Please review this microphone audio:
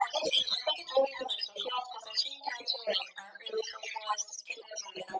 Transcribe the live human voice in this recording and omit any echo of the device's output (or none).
none